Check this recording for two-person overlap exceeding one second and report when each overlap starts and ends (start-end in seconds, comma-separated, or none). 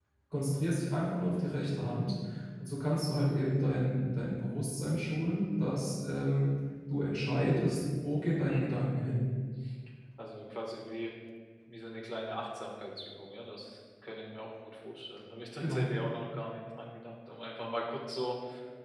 none